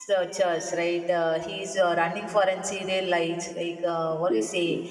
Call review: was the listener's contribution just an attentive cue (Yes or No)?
Yes